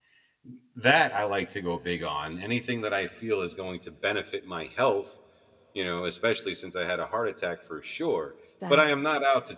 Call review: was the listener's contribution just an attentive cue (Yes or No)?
Yes